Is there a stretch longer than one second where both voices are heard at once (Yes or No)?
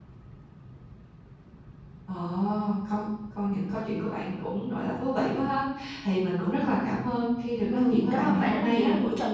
Yes